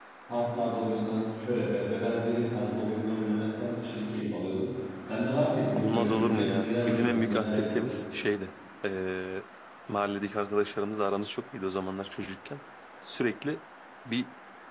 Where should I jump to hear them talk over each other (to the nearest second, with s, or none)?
6 s